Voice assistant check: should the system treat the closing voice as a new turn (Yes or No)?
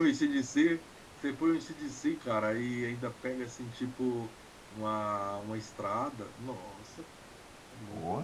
Yes